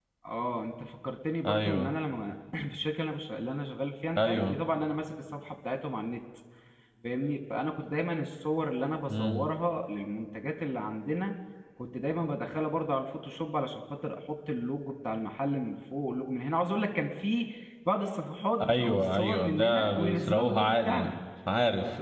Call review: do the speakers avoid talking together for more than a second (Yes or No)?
No